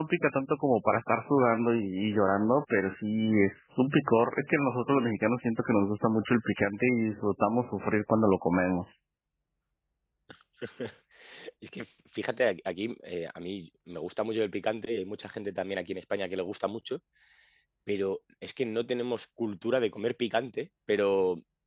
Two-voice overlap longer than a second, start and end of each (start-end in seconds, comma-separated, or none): none